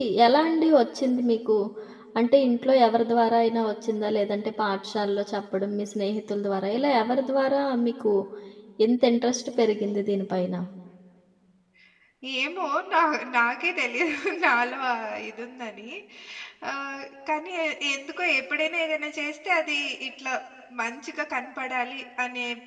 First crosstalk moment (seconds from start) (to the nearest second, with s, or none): none